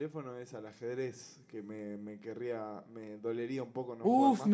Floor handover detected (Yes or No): Yes